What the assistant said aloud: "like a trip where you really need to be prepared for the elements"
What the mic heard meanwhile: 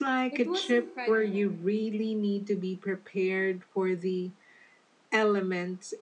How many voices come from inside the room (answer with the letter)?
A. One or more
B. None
A